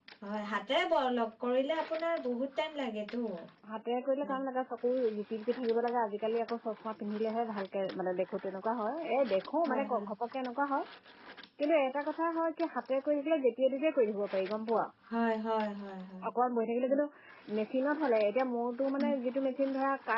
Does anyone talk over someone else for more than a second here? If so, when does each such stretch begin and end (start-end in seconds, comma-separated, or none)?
none